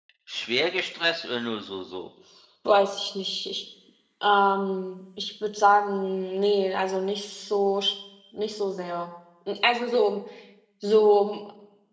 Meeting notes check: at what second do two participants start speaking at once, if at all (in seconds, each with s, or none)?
none